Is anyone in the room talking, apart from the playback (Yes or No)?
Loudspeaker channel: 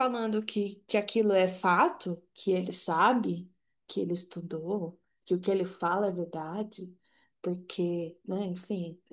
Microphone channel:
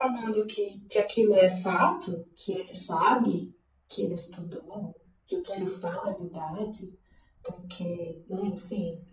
No